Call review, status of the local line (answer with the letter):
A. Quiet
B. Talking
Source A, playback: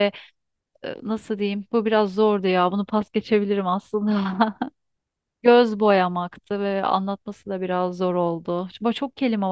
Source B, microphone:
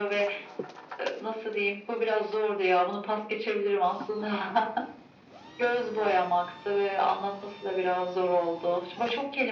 A